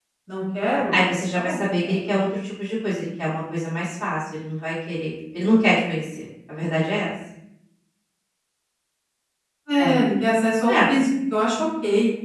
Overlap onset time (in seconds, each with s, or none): 0.9 s